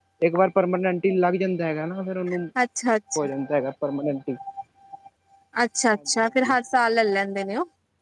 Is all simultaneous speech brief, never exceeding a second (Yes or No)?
Yes